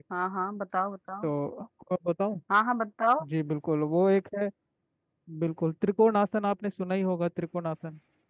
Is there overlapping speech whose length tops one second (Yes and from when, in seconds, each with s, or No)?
No